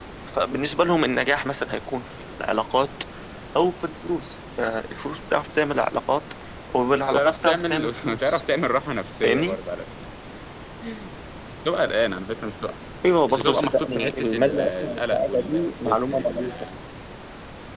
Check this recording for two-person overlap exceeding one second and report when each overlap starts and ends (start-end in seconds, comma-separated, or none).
7.1-8.4, 13.3-16.4